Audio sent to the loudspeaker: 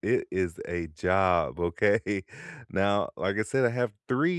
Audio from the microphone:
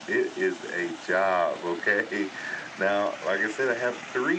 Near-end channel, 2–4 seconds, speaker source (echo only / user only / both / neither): echo only